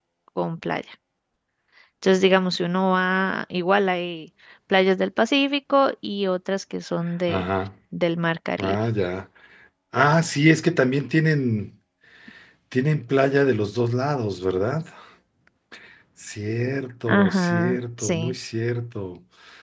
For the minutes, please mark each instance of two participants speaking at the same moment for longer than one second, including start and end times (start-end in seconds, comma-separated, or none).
17.1-18.4